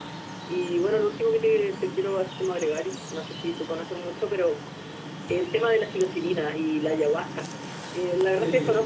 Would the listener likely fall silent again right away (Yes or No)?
Yes